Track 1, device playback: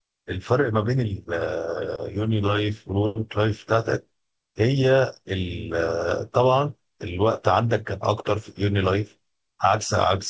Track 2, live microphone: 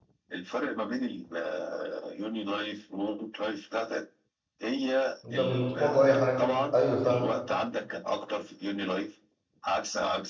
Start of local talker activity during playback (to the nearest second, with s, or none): 5 s